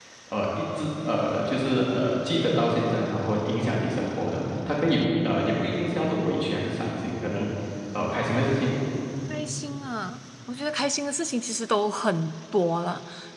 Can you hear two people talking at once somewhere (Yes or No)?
No